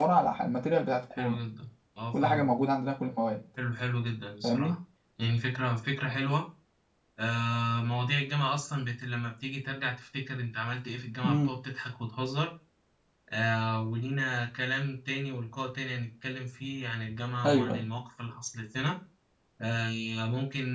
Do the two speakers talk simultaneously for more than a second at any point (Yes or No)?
No